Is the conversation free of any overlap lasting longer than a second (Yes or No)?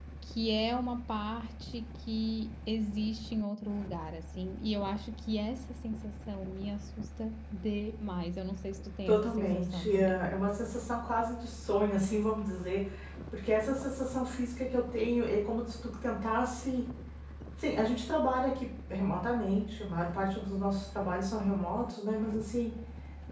No